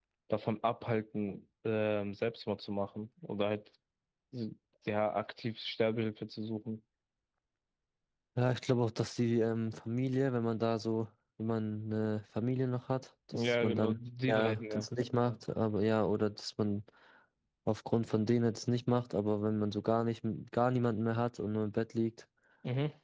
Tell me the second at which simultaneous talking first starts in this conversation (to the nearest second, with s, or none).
13 s